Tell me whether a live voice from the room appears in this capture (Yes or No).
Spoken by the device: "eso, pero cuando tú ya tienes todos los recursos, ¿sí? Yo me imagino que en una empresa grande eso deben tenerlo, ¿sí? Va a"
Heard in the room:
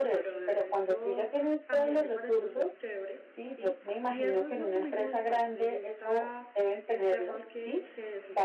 Yes